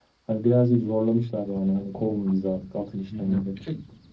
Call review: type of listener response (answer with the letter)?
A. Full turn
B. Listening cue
A